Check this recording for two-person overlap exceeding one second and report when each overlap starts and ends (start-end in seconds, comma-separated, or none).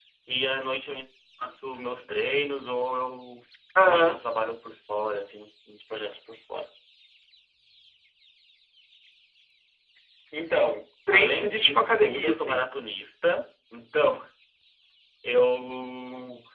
11.1-12.7